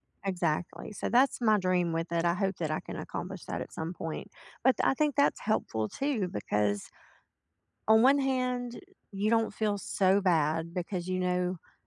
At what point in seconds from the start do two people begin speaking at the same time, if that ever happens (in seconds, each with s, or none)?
none